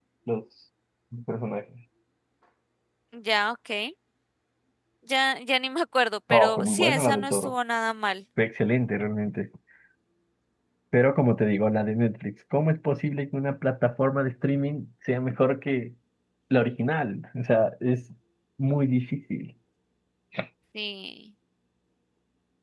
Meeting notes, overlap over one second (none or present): present